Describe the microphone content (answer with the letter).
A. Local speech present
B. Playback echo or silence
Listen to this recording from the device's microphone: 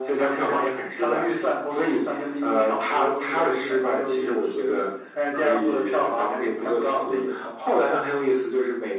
B